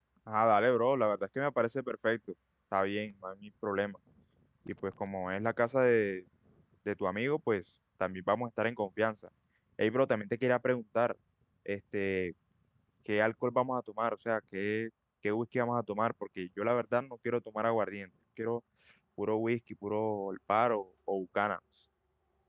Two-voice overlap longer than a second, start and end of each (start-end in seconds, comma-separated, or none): none